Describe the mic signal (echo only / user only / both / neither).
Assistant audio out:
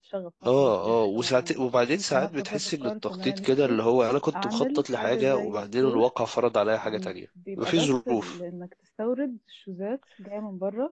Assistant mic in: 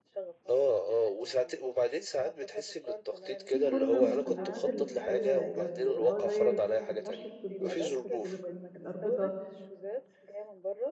both